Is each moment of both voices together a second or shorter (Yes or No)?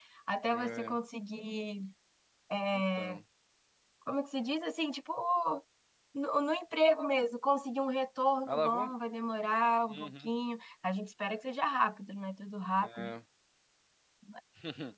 Yes